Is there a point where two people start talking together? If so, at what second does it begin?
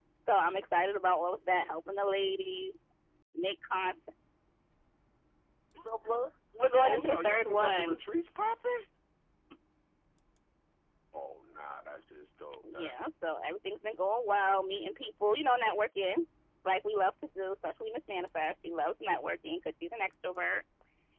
6.8 s

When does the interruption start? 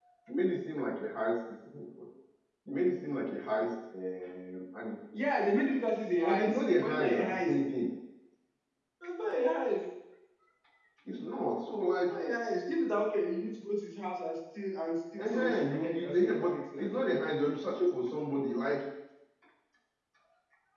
6.2 s

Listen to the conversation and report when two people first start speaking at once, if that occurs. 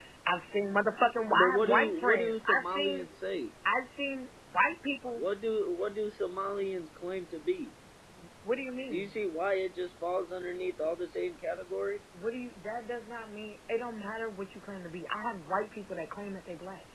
1.3 s

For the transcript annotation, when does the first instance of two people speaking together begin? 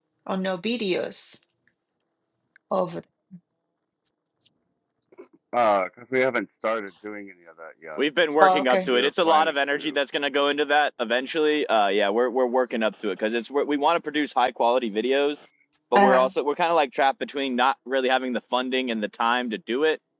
8.4 s

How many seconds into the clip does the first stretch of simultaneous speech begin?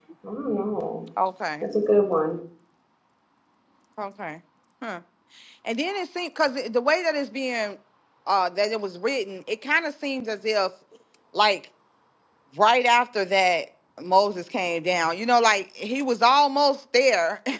none

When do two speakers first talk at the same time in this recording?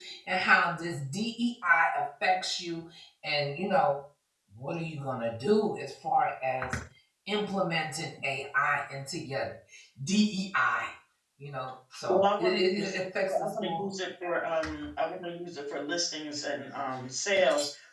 12.1 s

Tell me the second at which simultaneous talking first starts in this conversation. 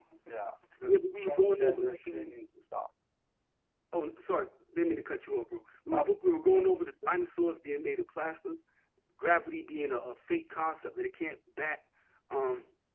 0.8 s

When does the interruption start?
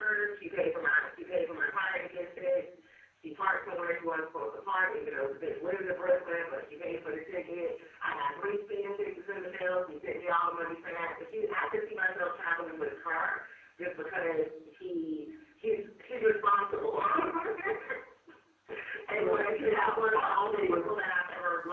19.2 s

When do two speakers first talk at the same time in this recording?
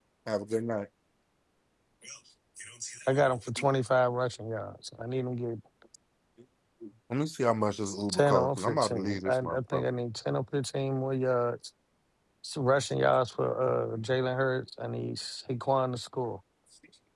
7.9 s

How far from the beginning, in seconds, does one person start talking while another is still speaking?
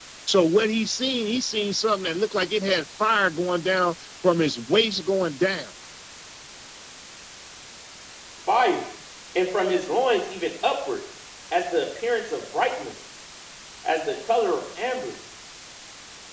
none

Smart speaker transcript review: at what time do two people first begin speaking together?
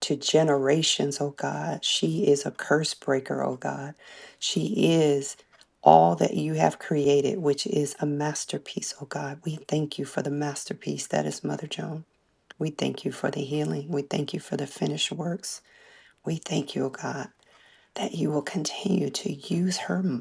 none

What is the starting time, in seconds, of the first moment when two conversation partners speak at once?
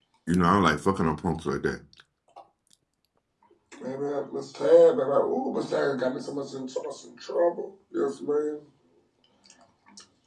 none

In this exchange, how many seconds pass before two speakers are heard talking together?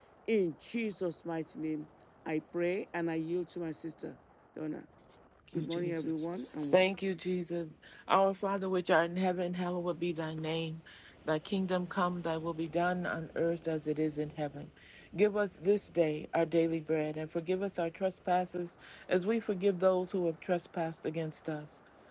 5.5 s

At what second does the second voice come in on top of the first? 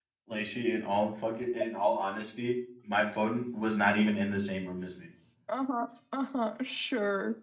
none

